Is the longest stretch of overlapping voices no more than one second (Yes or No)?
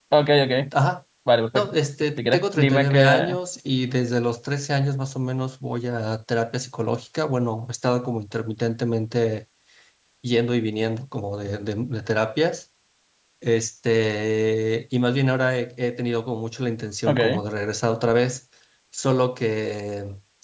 No